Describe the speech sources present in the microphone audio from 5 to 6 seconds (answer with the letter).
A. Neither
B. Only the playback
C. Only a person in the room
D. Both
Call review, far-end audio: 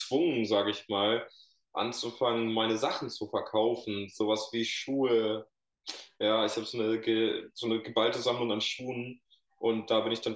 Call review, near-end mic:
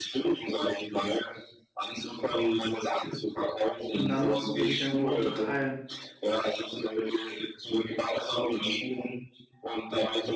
D